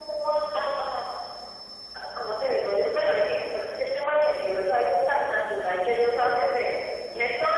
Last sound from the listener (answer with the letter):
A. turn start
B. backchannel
B